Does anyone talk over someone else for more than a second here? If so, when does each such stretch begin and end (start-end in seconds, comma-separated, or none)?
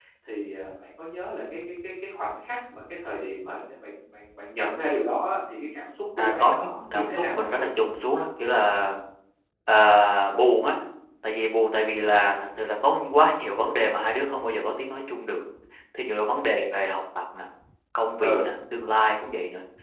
6.2-7.5